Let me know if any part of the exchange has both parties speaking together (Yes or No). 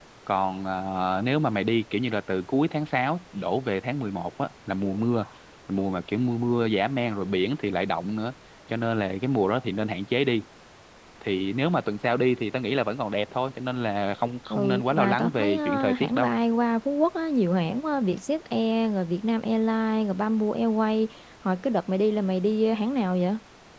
Yes